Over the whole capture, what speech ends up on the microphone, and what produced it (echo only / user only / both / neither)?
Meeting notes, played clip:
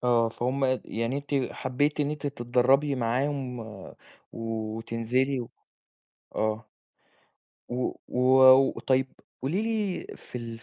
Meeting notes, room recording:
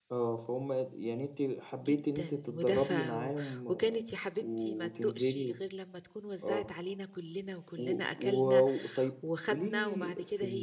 both